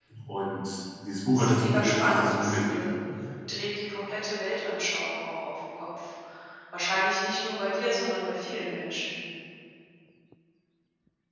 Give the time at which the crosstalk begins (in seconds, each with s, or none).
1.3 s